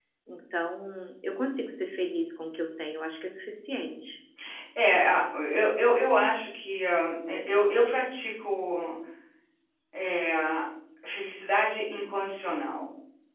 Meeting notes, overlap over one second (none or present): none